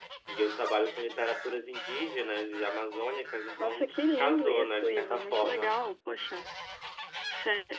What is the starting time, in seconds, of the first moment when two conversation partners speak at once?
3.6 s

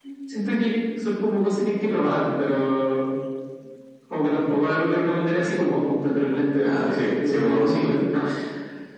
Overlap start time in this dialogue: 6.6 s

